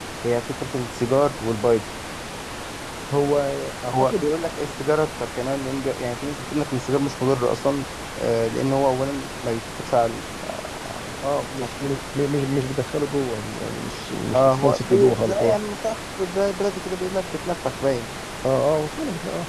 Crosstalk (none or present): present